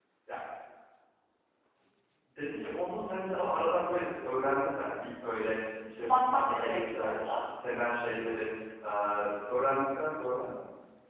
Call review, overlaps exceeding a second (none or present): present